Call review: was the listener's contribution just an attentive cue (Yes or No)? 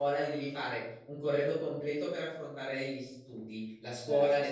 Yes